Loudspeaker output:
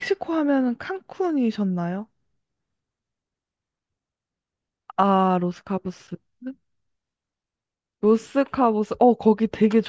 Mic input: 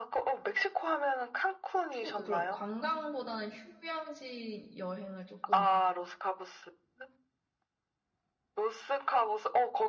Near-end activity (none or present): present